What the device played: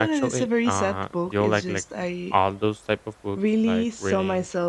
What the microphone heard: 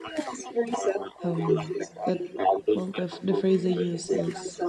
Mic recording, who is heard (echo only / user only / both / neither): both